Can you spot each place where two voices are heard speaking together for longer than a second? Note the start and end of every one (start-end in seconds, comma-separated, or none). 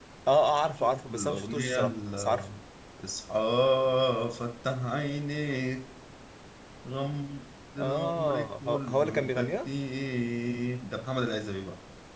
0.8-2.5, 7.8-9.7